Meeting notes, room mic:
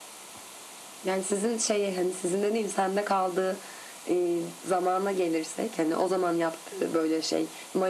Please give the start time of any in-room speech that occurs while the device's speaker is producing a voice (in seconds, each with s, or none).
none